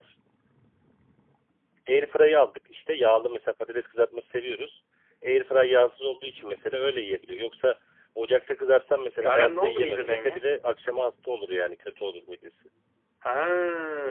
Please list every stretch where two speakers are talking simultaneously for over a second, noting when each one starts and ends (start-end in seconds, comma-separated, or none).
9.2-10.5